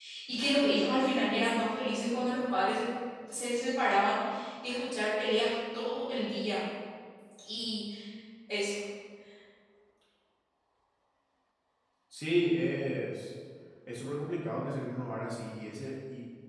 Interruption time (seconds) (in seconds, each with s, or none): none